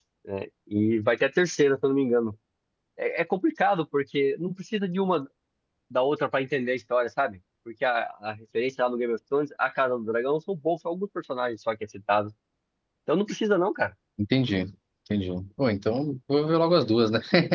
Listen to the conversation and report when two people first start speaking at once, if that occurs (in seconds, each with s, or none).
none